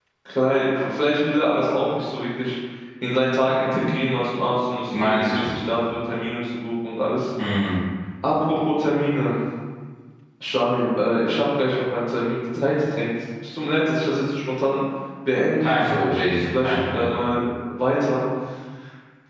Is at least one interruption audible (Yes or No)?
Yes